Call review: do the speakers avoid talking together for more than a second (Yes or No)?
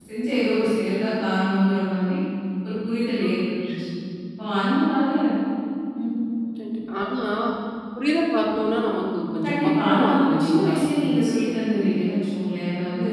No